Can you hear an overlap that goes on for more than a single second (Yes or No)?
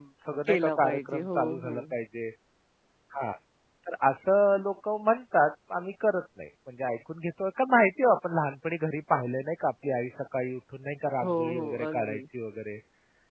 Yes